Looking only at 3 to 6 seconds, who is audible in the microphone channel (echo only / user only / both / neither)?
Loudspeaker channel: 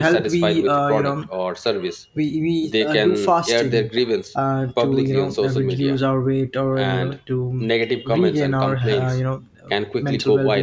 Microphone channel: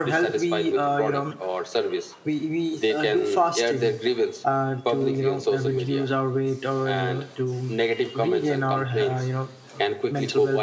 echo only